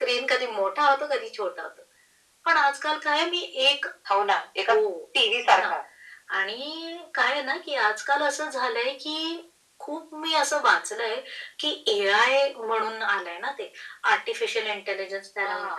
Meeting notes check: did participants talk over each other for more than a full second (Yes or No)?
No